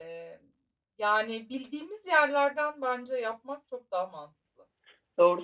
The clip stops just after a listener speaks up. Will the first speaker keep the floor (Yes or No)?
No